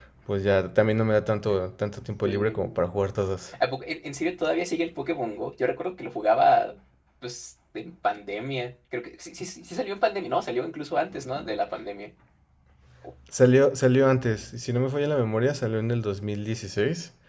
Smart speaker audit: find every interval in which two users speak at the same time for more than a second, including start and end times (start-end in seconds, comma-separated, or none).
none